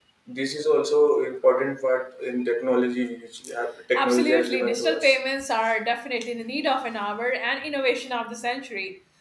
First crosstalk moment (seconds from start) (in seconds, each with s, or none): 4.0 s